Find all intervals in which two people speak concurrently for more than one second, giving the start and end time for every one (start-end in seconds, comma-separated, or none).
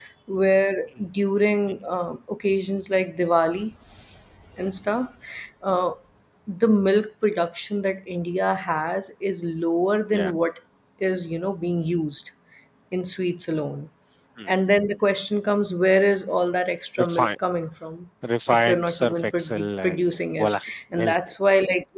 18.5-21.2